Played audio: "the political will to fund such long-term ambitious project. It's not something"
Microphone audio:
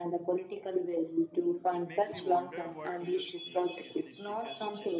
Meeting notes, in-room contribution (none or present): present